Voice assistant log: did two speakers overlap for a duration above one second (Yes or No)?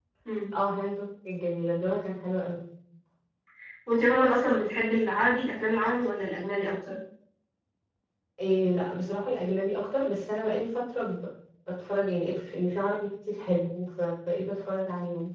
No